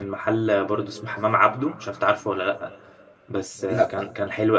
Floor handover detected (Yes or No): No